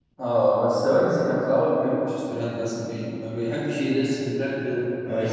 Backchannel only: Yes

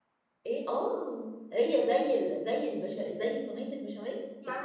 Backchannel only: No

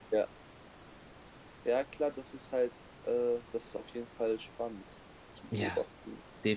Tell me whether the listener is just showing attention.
No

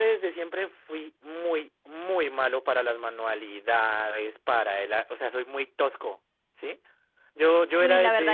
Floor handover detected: Yes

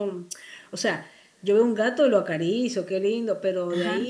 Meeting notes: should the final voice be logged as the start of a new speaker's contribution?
No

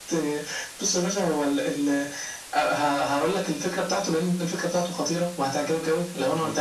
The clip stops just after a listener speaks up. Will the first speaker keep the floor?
Yes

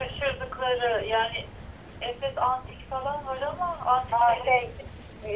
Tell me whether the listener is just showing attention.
No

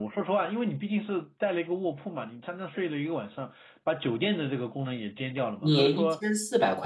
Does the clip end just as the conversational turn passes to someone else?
Yes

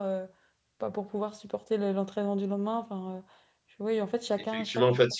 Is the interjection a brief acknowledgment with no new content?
No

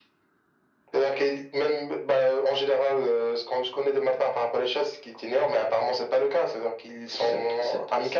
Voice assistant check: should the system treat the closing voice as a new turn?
Yes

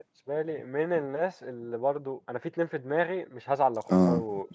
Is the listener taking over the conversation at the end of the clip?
No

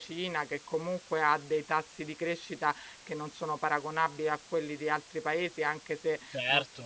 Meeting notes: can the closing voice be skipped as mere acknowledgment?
Yes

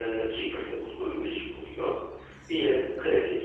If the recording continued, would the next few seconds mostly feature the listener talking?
No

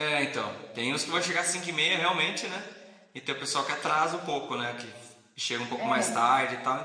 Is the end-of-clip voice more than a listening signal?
No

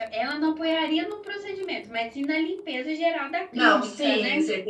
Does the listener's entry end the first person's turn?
Yes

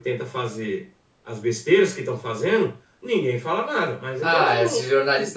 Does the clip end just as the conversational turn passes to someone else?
Yes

